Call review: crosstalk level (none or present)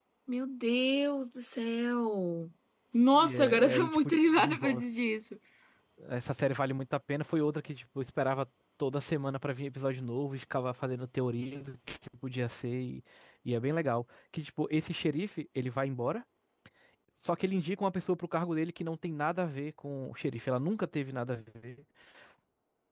present